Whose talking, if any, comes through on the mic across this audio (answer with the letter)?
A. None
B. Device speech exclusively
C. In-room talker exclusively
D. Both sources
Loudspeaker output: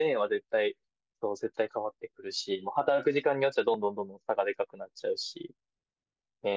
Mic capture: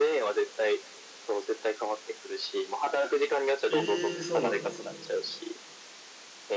D